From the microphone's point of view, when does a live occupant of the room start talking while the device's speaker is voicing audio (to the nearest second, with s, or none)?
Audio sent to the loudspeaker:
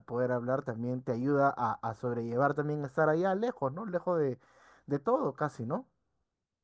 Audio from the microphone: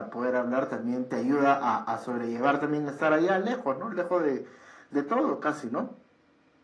none